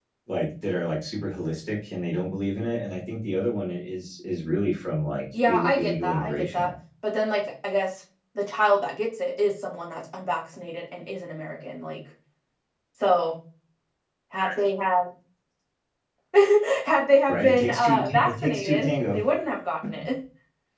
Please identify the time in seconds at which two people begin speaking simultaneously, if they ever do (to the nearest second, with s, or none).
5 s